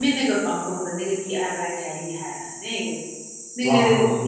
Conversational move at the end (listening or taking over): taking over